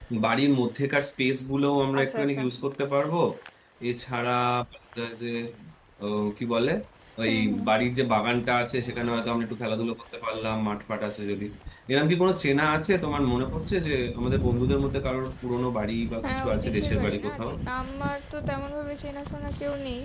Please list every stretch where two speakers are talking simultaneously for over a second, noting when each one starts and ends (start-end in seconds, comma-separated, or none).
16.2-17.5